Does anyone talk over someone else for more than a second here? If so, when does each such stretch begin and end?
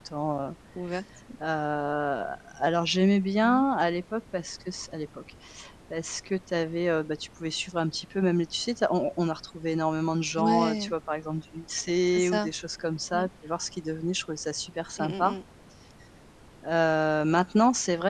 none

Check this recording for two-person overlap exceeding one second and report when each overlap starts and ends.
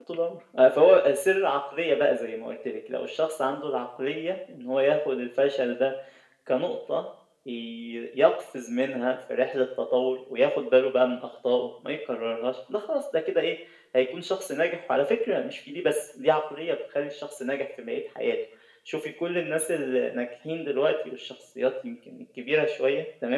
none

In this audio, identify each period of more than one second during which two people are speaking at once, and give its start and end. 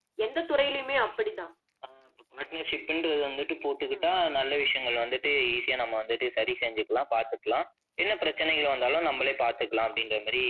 none

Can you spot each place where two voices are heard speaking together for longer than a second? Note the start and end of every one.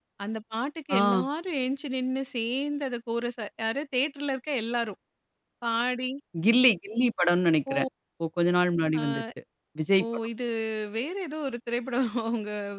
none

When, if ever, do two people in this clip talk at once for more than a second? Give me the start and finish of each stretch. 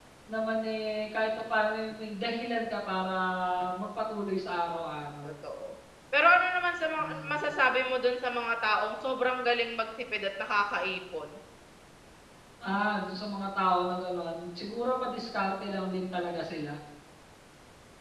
none

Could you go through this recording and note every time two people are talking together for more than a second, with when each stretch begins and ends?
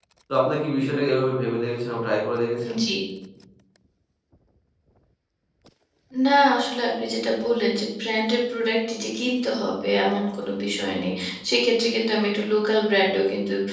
none

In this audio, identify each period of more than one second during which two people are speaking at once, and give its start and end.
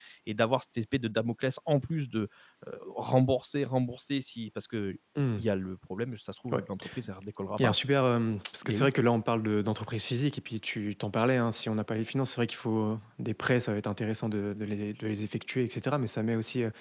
none

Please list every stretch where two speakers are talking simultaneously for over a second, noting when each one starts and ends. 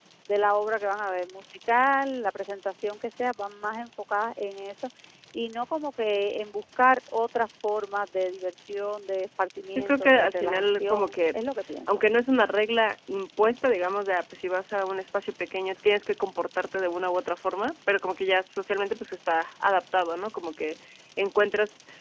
9.8-11.4

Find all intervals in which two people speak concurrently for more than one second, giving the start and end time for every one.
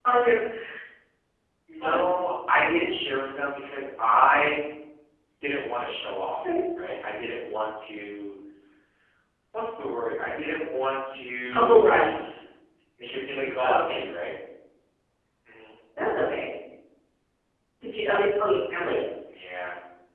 none

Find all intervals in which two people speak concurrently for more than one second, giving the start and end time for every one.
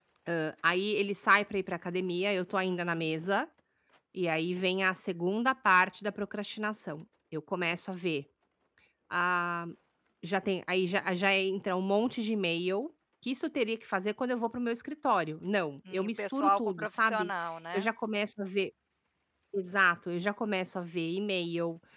15.9-17.3

